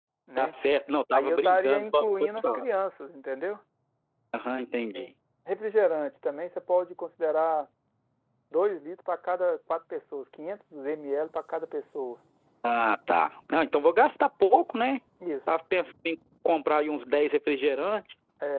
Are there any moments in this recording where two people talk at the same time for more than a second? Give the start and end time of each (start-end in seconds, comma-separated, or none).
1.1-2.6